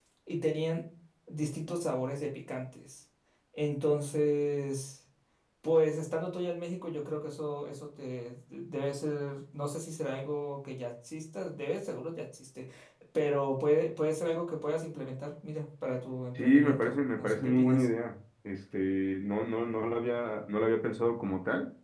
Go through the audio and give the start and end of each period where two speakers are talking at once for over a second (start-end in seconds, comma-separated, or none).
16.4-17.9